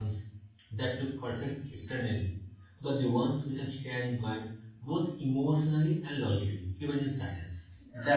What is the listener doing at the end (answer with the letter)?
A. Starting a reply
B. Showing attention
A